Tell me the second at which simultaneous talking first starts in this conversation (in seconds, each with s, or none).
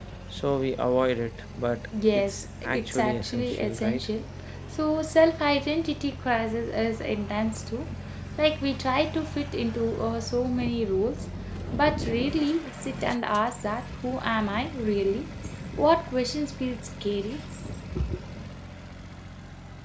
1.9 s